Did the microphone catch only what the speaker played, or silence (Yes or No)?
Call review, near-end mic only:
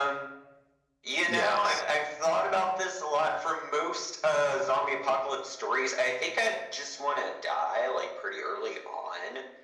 No